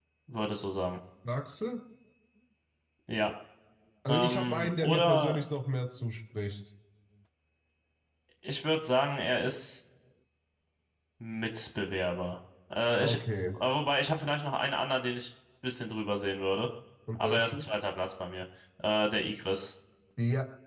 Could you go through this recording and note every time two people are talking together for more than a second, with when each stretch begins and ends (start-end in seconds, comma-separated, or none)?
4.1-5.5